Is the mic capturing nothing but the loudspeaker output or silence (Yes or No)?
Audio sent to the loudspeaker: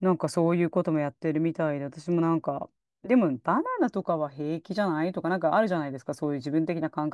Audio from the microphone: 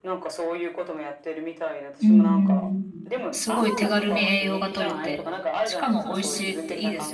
No